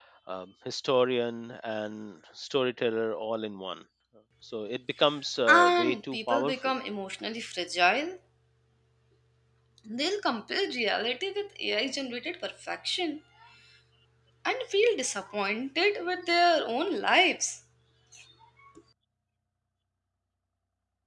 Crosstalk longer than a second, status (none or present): present